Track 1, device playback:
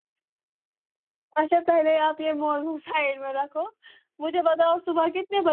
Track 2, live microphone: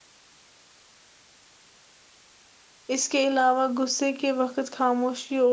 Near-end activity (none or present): present